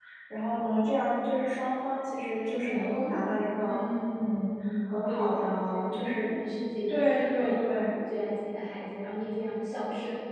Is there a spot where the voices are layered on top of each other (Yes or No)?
Yes